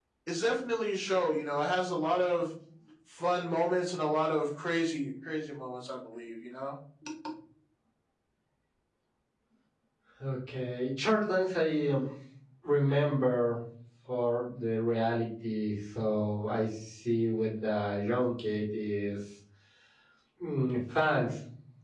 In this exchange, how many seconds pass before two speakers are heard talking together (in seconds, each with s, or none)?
none